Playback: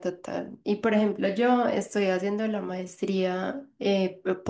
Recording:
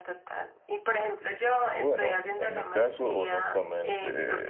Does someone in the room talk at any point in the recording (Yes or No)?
Yes